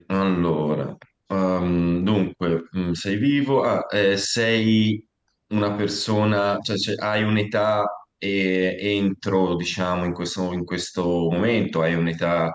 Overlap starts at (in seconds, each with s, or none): none